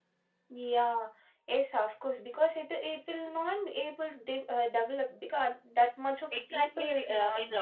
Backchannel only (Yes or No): No